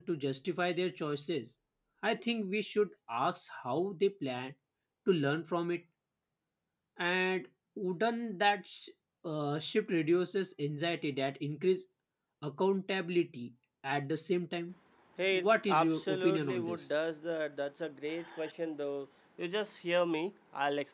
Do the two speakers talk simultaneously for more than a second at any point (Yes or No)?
Yes